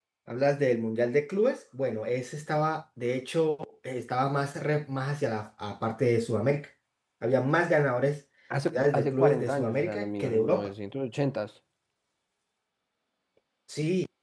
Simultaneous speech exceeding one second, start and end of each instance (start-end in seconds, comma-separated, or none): 8.7-10.7